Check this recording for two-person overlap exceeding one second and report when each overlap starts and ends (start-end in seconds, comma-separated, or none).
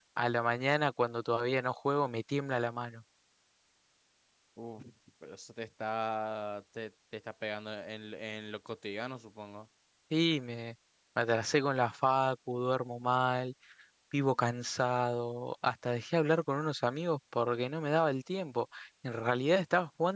none